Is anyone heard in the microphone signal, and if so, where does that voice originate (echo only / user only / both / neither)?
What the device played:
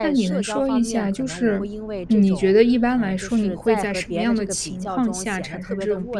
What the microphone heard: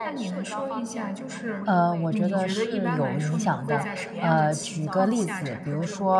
both